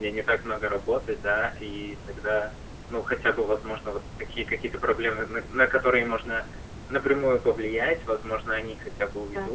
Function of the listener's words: listening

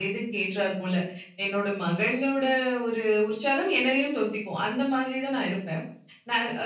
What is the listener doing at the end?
listening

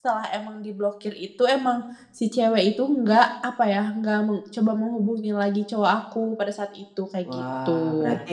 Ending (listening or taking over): taking over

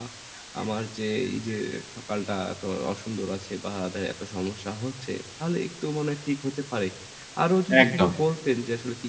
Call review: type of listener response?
listening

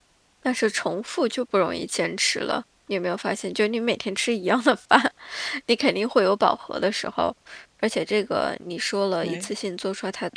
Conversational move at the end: listening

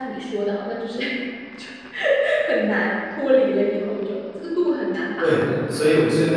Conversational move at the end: taking over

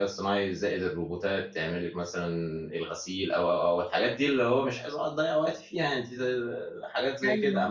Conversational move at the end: listening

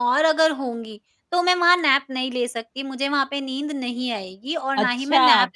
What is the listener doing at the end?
taking over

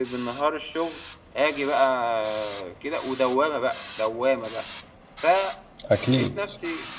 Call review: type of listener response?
listening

